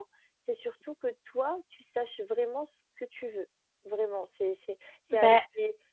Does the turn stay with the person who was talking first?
Yes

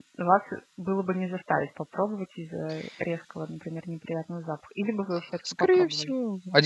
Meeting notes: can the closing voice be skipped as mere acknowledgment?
No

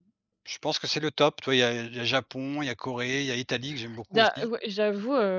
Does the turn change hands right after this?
Yes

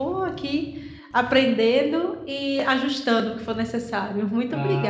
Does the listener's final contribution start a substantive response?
Yes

